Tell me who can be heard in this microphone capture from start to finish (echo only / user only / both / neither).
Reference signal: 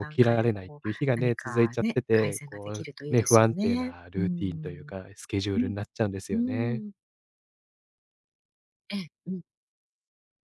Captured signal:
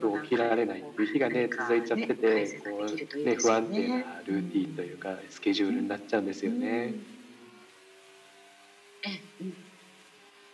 echo only